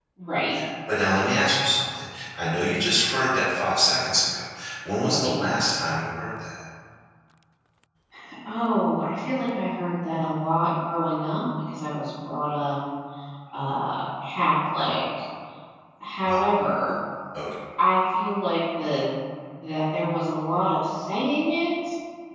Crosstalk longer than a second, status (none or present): none